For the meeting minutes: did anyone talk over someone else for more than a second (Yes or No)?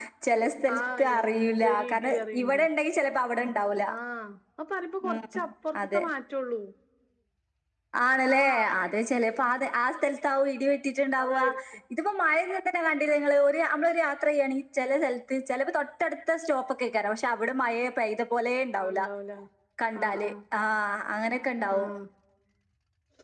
Yes